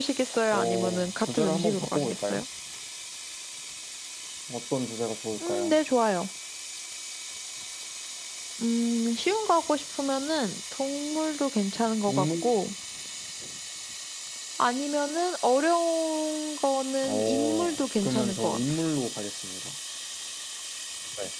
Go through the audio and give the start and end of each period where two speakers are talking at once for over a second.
0.5-2.4, 17.0-18.6

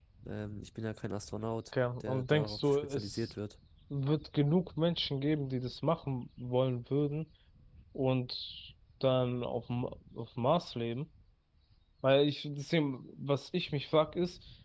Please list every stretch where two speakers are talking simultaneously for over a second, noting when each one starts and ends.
2.0-3.3

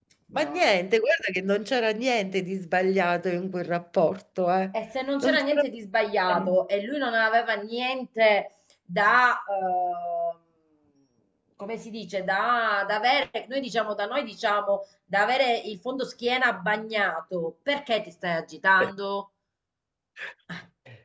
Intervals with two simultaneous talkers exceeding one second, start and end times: none

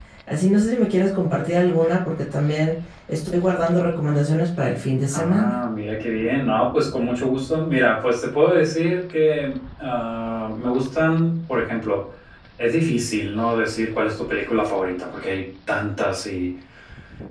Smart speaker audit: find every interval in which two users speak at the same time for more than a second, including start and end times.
none

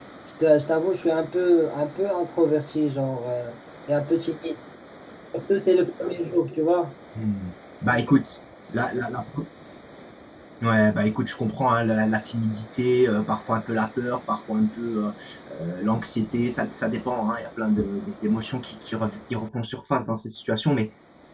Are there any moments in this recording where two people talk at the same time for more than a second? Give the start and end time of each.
none

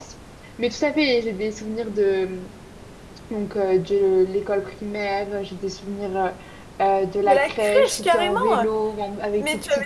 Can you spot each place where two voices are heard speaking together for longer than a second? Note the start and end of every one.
7.2-8.7

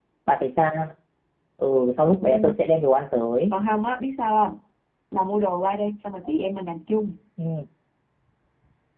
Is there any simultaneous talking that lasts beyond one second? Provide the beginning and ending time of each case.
none

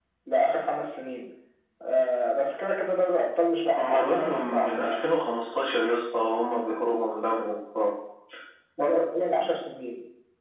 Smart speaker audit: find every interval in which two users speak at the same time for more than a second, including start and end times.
3.8-5.1

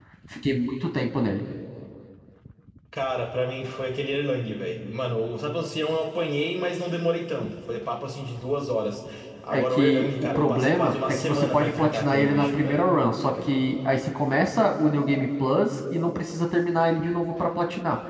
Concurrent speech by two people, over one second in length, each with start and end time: 9.5-12.9

